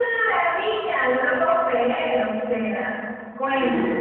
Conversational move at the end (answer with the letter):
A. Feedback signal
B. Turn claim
A